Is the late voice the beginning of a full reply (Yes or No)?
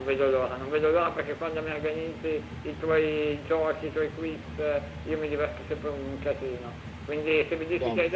No